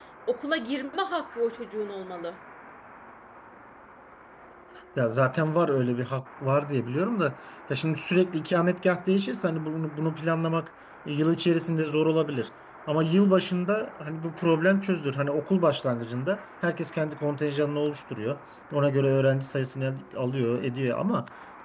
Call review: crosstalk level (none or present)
none